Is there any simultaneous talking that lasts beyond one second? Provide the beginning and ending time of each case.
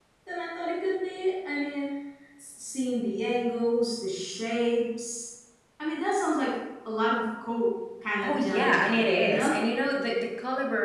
8.2-9.5

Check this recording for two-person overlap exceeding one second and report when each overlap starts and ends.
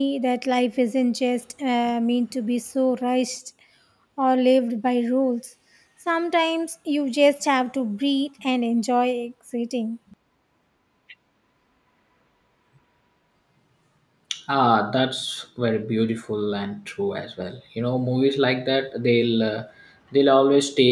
none

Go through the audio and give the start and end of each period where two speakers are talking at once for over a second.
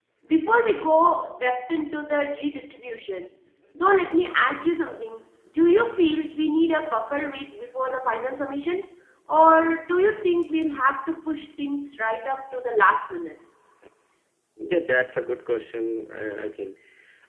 none

